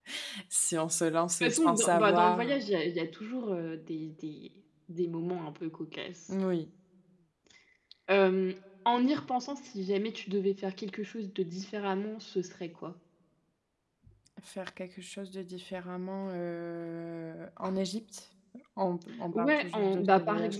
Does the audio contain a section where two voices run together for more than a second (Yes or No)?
Yes